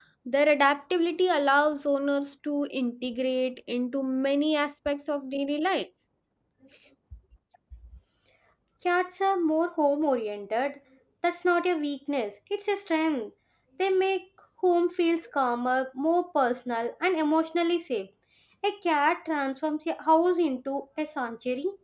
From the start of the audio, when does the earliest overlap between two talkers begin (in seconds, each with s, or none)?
none